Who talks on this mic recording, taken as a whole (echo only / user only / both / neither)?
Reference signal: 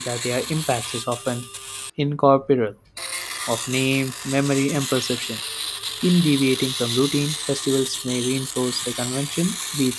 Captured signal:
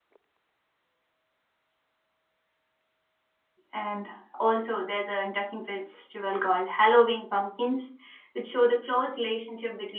user only